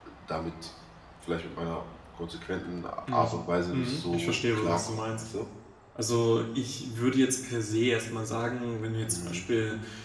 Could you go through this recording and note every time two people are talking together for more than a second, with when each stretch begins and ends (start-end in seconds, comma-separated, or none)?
3.7-5.2